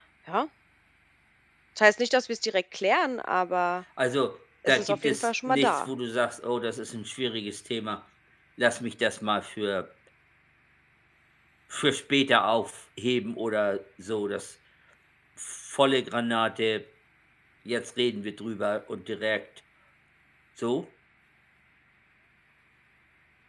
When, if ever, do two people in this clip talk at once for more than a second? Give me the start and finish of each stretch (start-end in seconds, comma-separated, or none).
4.7-5.9